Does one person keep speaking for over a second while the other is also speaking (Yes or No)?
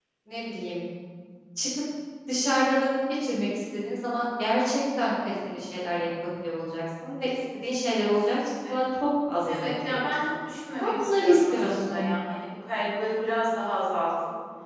Yes